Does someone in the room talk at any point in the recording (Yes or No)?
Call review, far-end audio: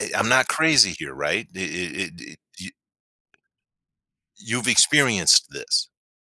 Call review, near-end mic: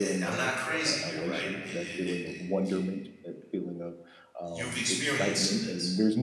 Yes